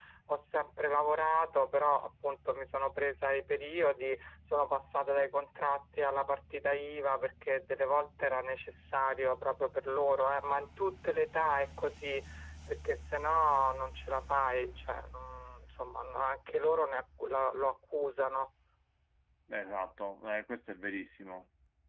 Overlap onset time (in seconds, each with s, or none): none